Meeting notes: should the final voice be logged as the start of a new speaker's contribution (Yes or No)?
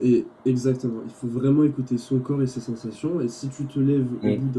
No